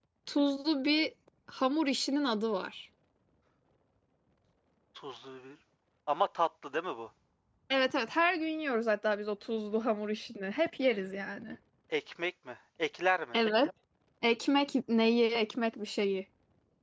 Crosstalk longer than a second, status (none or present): none